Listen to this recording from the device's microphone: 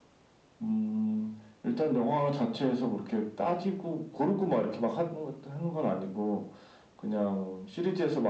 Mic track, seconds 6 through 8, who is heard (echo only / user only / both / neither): echo only